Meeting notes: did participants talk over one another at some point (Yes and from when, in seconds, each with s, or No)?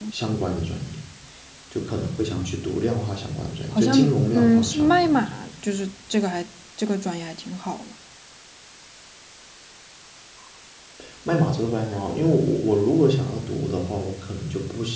Yes, from 3.8 s